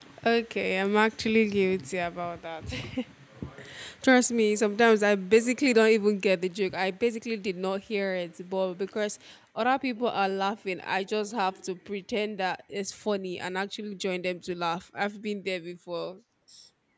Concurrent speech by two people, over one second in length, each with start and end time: none

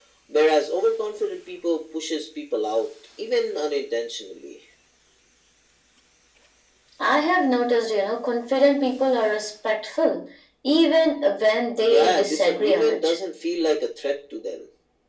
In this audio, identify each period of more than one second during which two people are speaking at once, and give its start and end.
11.8-13.2

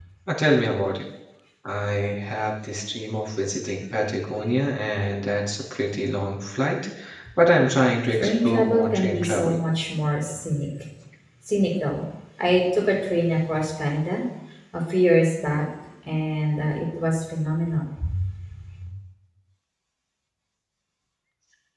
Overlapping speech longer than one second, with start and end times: 8.1-9.5

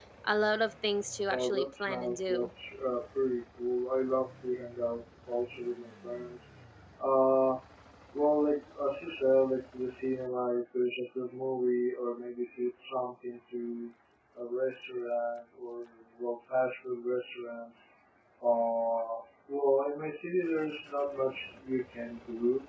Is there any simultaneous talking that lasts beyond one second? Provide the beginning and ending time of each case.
1.3-2.5

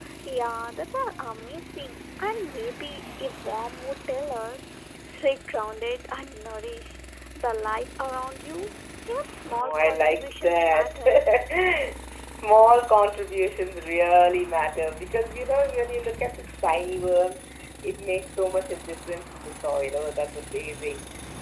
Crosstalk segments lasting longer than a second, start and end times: 9.5-11.0

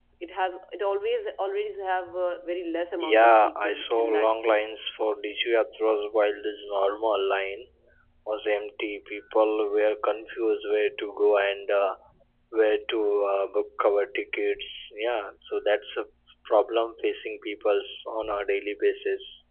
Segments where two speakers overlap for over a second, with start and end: 3.0-4.6

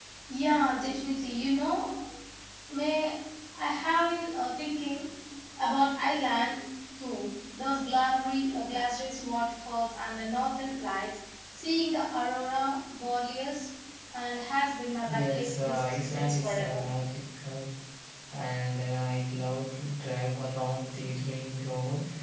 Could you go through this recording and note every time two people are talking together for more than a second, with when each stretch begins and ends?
15.0-16.8

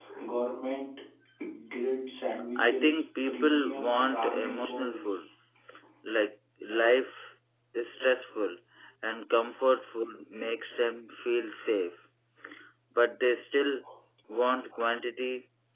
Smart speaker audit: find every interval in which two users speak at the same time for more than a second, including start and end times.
2.6-5.0

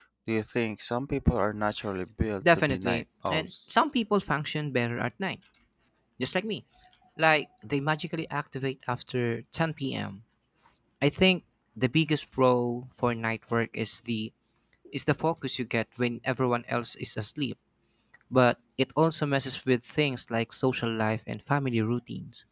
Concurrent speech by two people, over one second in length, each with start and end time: 2.4-3.7

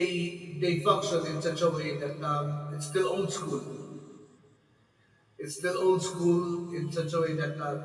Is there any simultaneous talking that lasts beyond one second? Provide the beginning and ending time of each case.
none

